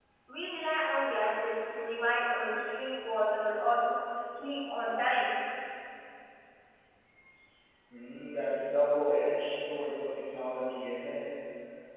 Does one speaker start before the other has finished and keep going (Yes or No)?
No